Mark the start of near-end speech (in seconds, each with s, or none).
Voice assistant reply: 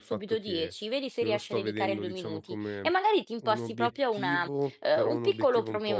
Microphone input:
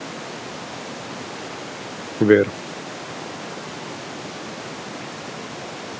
2.2 s